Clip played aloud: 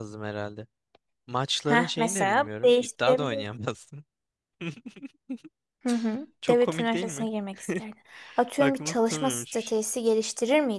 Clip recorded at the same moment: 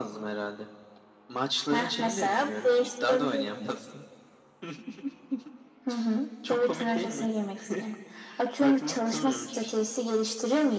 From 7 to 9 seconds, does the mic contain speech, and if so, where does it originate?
echo only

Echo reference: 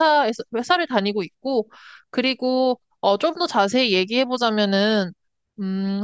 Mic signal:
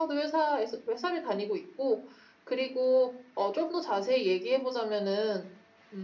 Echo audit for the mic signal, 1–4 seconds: echo only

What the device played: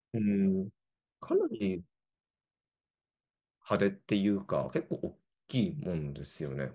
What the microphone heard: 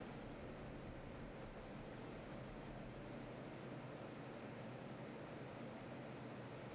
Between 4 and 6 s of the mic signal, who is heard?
neither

